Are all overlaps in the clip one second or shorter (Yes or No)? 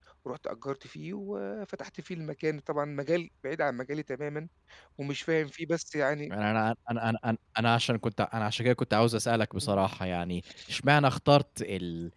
Yes